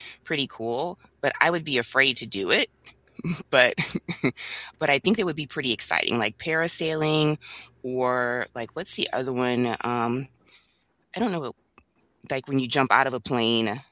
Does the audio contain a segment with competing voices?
No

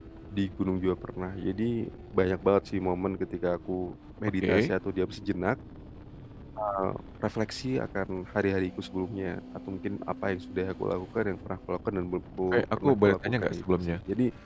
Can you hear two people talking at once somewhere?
Yes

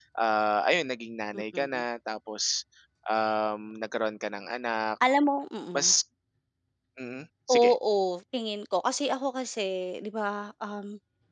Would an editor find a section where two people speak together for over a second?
No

